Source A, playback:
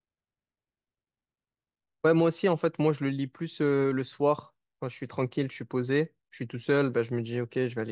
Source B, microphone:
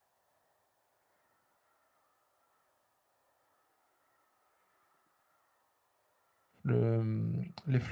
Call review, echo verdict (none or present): none